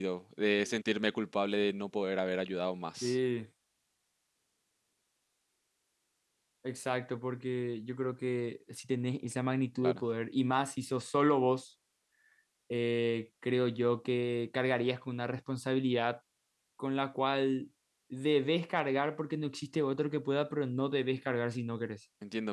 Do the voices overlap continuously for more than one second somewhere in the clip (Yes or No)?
No